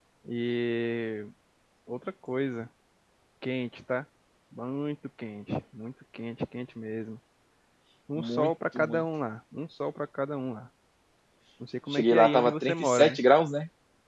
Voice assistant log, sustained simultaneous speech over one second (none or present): present